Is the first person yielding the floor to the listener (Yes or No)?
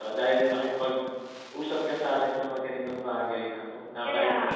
Yes